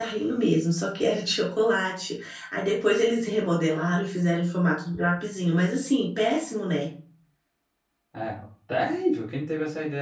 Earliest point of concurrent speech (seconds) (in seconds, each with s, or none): none